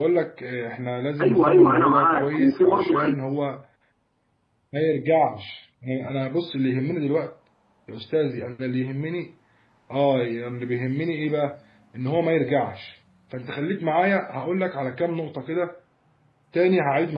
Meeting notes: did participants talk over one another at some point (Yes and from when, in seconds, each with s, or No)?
Yes, from 1.2 s